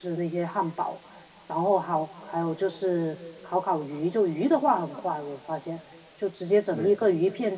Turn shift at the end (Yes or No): No